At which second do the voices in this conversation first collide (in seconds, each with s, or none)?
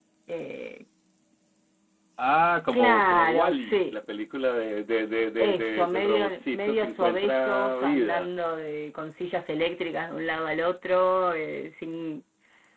2.7 s